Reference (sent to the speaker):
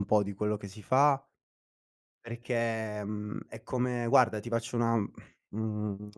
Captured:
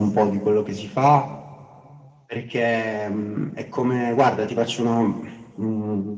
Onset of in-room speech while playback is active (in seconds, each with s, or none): none